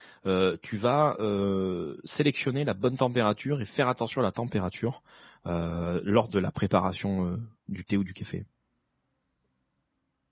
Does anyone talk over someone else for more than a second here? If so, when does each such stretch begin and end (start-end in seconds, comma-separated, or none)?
none